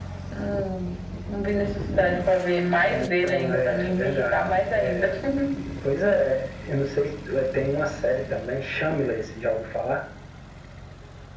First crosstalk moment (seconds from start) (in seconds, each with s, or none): 2.9 s